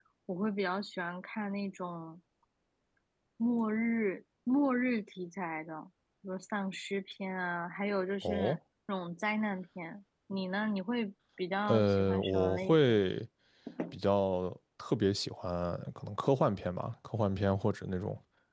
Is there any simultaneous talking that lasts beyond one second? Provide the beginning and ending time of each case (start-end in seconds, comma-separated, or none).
11.7-13.0